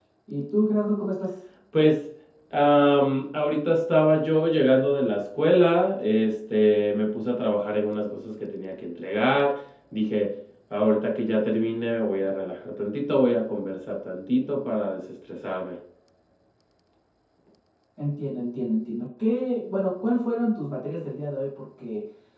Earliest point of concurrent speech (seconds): none

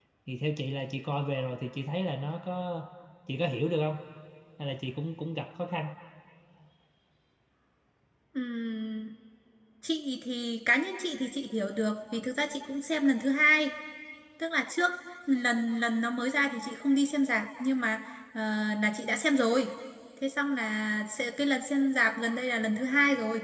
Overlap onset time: none

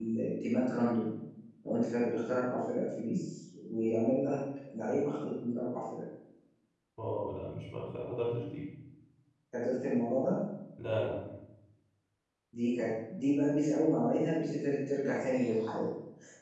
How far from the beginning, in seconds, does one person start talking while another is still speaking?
none

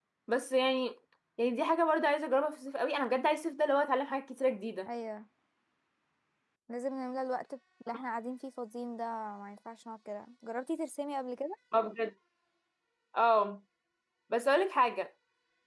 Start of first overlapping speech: none

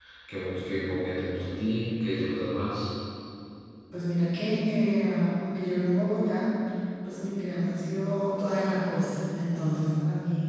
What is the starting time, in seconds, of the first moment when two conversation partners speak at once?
none

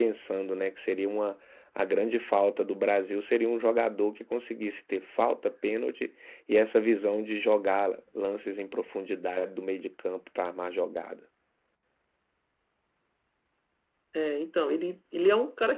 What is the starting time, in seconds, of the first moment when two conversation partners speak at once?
none

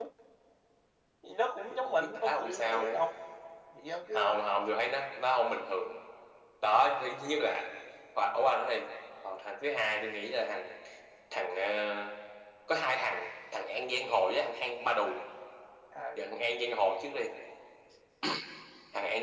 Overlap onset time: 1.7 s

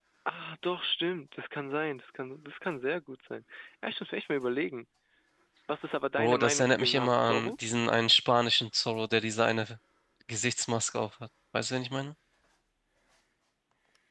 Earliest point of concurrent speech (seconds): 6.2 s

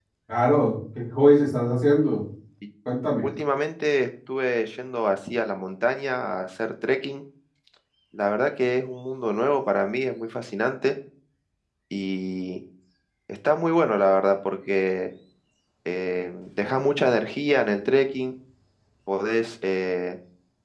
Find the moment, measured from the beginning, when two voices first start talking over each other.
none

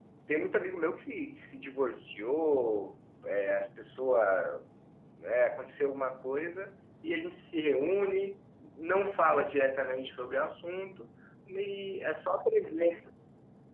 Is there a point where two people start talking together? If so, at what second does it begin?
none

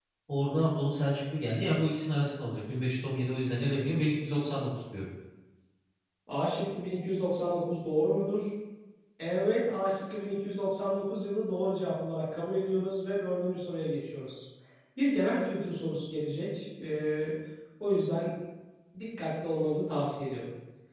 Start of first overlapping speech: none

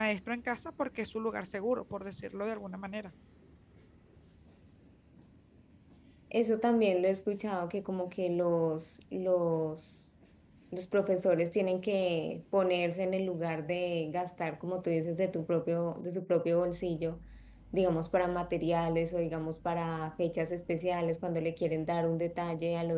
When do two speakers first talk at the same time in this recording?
none

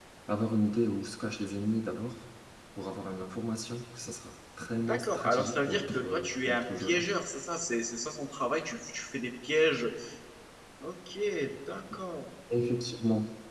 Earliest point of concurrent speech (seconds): 4.8 s

